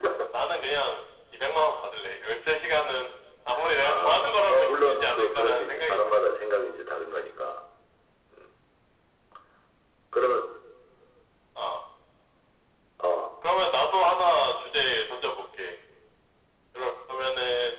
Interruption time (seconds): 4 s

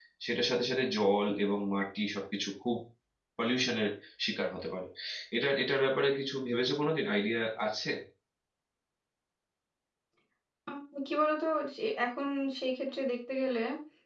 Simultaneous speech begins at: none

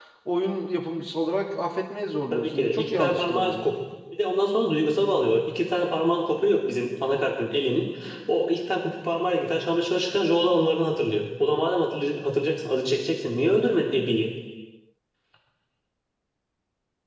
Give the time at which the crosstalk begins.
2 s

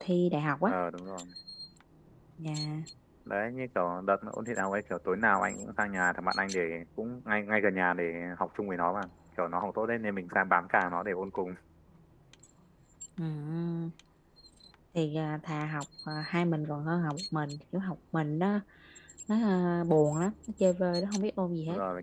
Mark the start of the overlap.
none

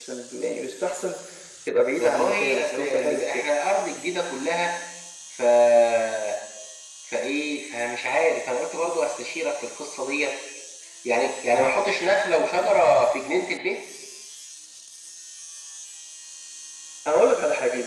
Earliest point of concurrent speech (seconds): 2 s

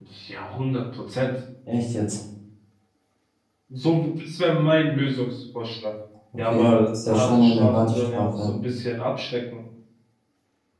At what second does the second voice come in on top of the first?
7 s

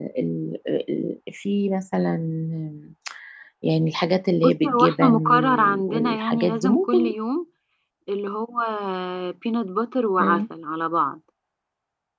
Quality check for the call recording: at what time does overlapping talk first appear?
4 s

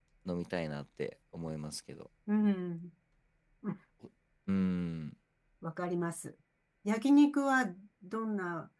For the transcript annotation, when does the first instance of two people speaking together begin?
none

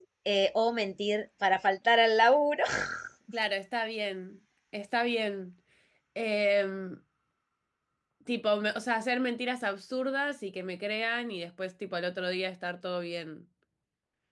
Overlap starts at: none

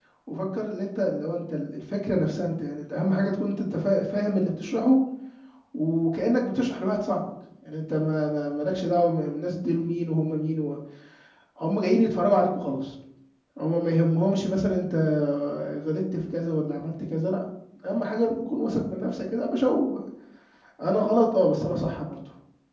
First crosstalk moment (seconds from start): none

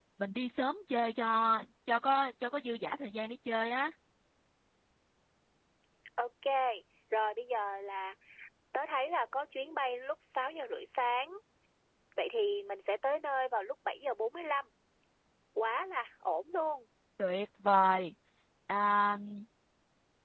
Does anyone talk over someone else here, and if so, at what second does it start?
none

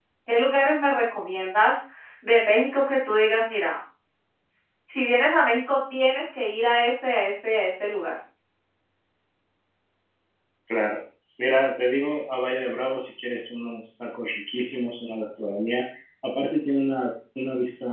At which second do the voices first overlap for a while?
none

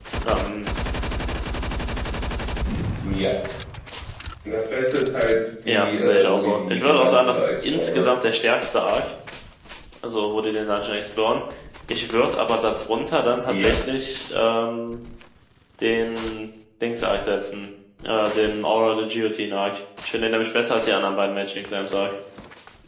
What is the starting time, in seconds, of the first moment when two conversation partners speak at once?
6 s

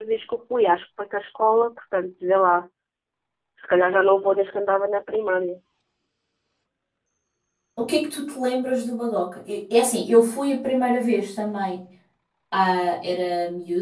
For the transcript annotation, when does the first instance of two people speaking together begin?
none

